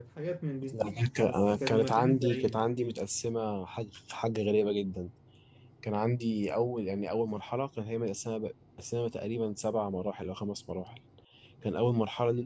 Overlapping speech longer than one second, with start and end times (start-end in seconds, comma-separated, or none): 1.2-3.0